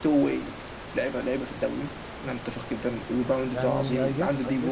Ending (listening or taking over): taking over